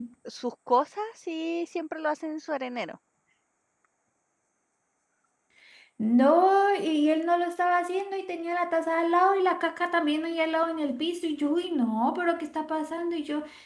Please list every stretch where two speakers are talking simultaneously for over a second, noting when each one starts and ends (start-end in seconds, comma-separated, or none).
none